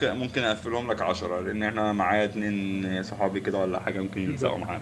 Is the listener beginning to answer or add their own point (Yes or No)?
Yes